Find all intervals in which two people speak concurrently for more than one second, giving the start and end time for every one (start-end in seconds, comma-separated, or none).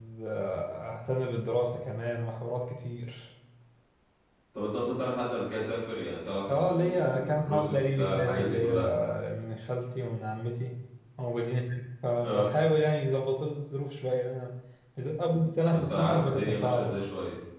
6.5-8.9, 15.7-17.0